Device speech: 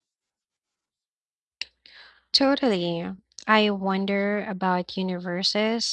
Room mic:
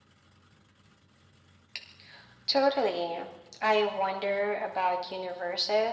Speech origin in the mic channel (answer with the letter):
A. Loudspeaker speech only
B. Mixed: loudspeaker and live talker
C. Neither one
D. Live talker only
A